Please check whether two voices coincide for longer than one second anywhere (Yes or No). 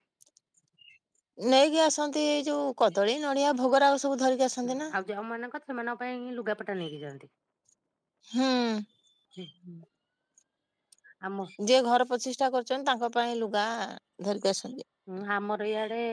No